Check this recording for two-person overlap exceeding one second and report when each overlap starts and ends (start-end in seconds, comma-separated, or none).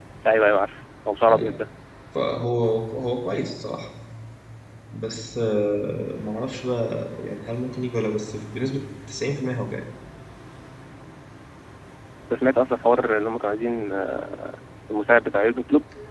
none